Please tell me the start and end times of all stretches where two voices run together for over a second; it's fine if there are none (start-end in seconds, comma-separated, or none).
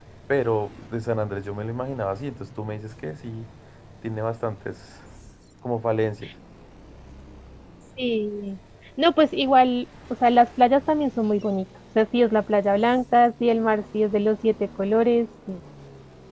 none